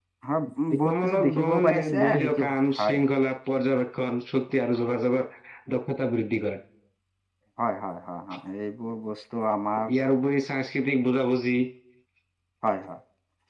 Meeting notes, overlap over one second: present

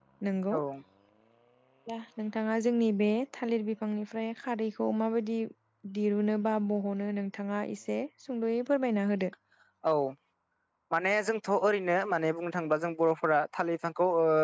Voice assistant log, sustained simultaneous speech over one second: none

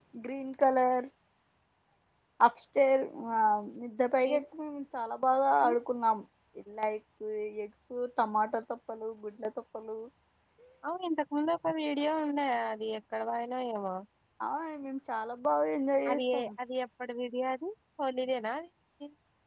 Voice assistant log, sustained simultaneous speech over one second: none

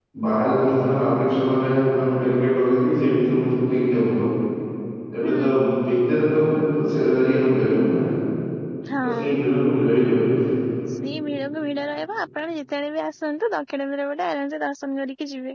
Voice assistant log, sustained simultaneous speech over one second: none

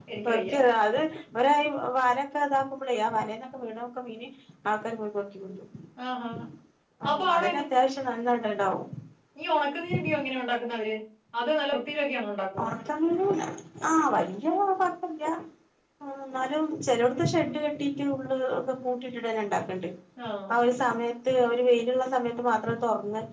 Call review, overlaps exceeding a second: none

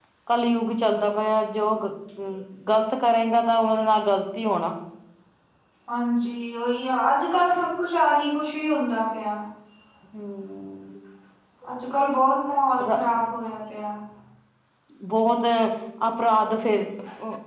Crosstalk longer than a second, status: none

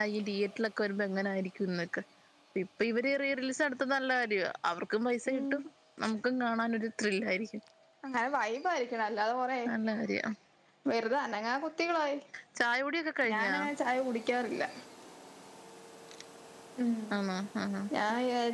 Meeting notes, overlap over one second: none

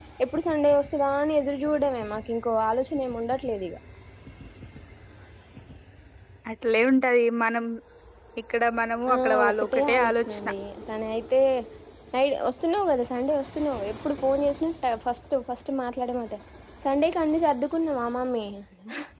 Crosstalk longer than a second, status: present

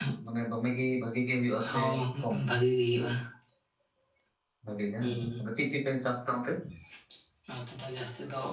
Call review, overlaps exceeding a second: none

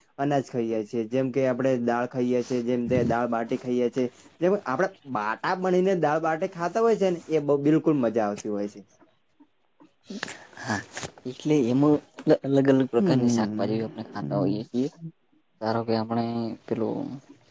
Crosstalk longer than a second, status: present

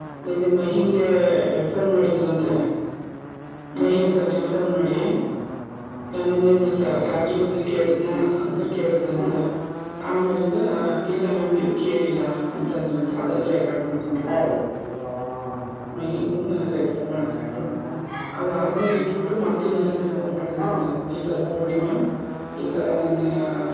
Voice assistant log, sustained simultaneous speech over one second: none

